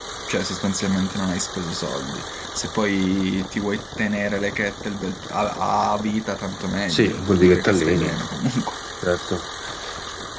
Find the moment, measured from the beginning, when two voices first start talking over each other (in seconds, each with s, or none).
6.9 s